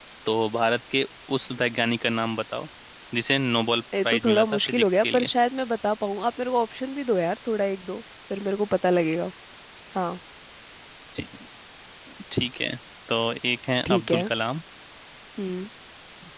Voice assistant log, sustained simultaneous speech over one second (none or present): present